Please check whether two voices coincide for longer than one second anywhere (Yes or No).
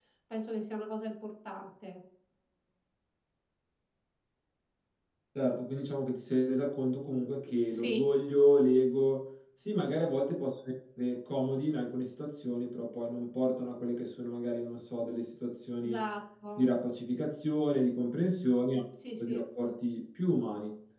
No